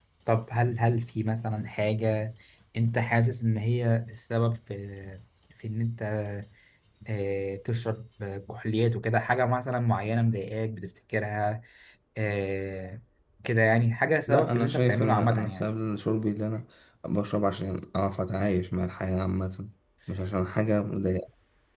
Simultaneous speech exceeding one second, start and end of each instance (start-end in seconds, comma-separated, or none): 14.3-15.7